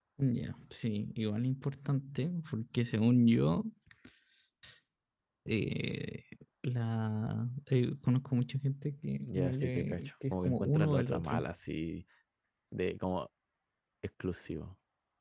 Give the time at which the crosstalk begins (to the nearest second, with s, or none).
9 s